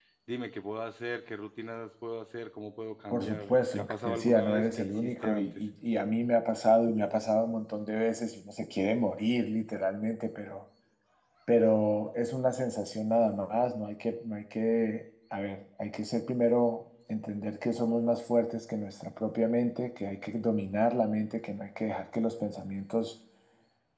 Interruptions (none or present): present